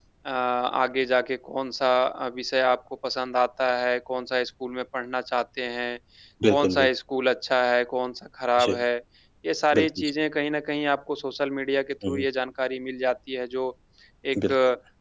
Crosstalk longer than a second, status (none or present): none